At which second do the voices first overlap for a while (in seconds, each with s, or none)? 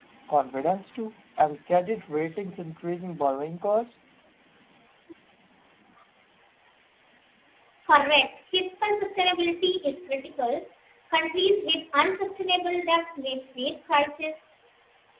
none